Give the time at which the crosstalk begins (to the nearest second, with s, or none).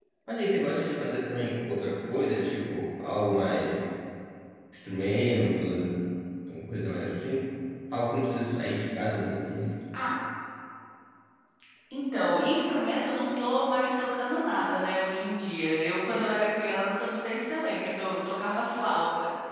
none